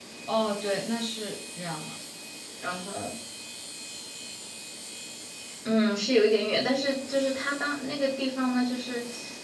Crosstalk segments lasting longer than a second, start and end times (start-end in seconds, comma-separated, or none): none